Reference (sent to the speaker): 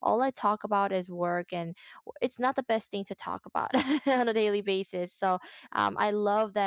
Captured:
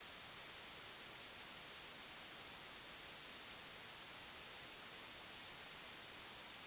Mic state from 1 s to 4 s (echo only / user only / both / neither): neither